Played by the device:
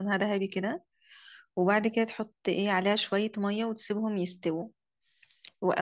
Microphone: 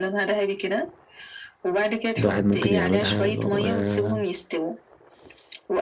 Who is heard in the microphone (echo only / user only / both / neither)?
both